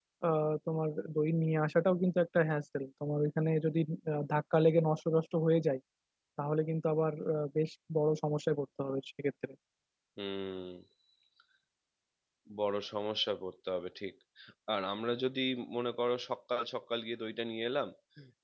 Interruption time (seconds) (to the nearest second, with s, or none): none